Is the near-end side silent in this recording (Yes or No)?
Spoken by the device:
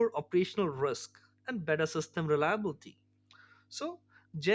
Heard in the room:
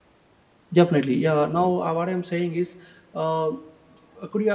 No